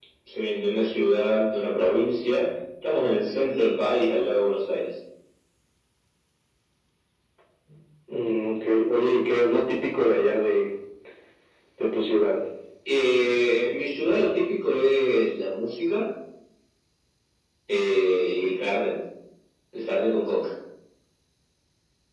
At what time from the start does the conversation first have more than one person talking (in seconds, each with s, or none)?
none